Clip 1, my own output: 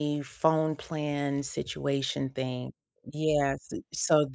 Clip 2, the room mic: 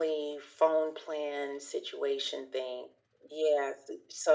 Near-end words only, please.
none

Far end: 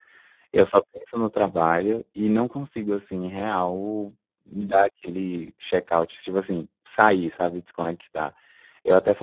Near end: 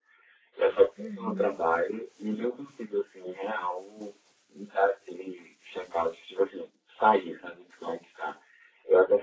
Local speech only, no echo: Uhum.

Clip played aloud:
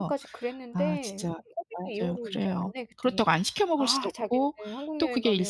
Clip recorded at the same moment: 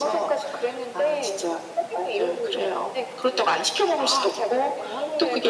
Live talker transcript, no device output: none

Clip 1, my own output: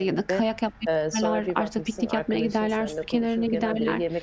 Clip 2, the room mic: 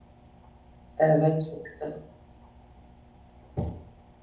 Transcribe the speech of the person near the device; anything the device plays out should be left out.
Evet, çok güzel.

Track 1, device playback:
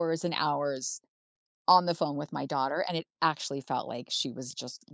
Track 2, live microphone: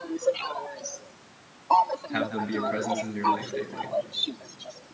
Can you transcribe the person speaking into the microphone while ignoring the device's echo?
have them be a presence in your life daily.

